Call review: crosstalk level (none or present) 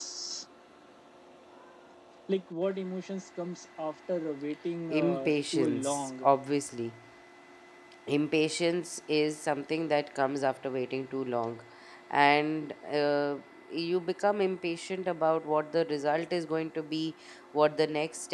present